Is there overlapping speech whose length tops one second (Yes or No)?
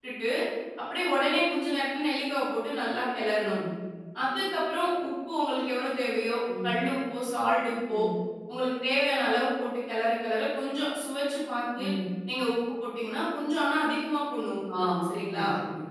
No